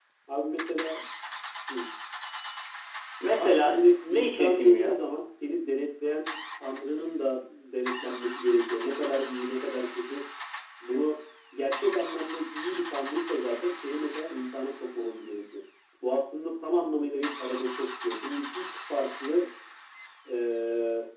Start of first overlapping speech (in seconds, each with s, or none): 3.4 s